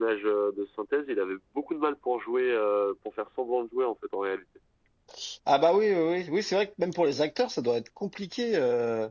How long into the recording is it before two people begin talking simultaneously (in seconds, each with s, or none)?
none